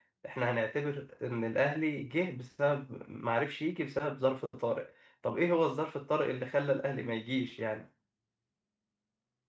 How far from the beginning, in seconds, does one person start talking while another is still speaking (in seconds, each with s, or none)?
none